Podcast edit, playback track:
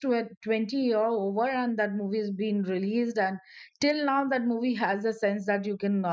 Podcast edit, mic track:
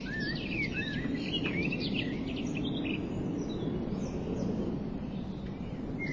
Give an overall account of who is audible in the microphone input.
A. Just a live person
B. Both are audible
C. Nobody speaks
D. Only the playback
C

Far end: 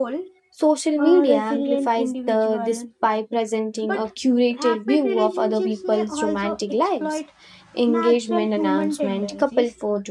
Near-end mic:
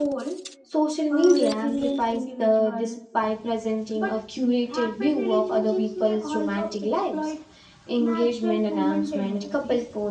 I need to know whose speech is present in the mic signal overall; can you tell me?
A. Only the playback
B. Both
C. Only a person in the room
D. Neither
A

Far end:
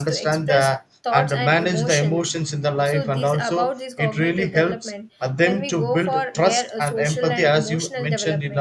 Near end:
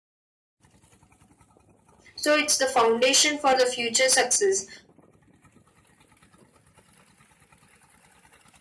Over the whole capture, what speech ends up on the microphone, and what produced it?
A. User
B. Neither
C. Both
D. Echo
A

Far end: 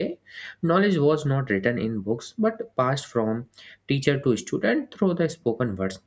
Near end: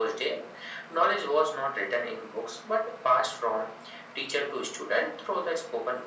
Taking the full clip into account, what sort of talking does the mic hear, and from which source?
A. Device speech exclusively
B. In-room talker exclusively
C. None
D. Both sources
A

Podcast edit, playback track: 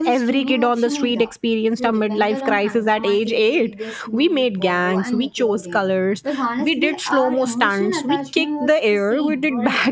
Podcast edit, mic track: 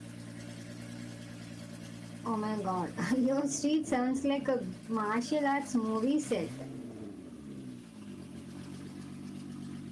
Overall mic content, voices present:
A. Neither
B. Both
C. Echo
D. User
D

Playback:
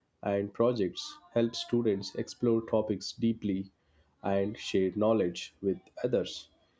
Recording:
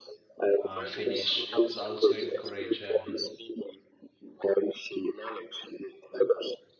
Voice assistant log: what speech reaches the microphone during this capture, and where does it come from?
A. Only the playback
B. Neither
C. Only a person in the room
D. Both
D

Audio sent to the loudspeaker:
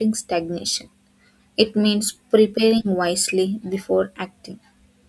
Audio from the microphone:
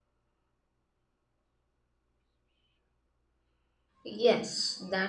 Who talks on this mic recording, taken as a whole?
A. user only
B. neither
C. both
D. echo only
A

